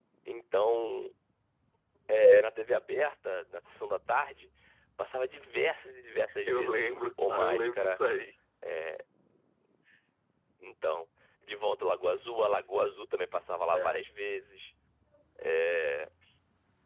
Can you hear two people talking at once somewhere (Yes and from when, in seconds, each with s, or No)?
Yes, from 6.5 s